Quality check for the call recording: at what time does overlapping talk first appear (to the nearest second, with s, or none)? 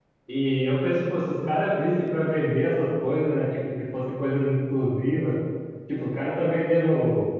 none